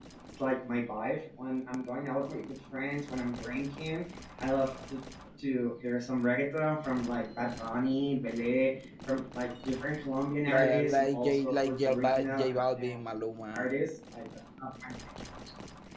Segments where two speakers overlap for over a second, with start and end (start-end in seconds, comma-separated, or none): 10.5-12.9